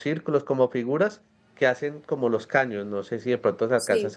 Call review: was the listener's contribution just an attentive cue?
Yes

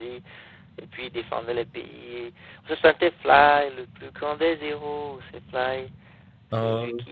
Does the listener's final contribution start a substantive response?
No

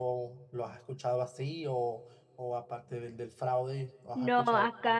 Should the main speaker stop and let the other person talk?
Yes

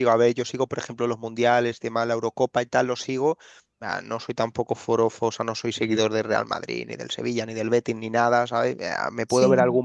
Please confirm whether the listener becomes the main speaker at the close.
No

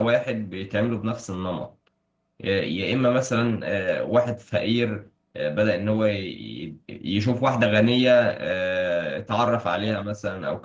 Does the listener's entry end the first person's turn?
No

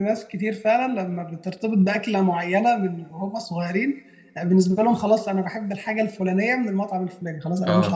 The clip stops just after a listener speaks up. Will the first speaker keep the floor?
No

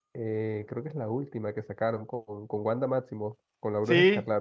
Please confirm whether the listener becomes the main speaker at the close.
Yes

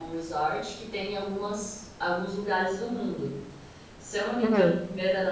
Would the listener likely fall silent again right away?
Yes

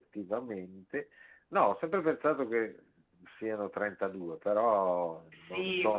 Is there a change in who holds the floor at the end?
Yes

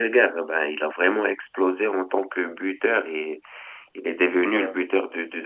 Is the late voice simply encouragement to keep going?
Yes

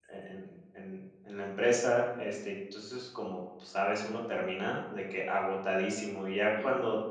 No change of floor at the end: Yes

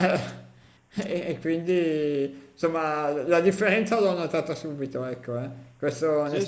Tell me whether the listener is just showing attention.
Yes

